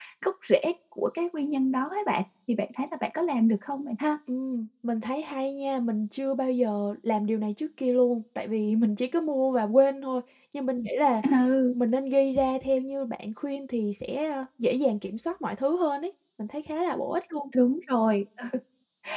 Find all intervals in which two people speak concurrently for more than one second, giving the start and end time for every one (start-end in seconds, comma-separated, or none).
none